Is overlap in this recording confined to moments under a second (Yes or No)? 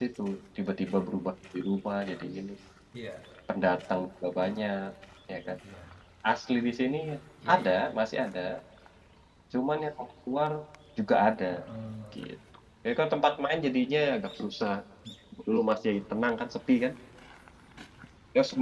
Yes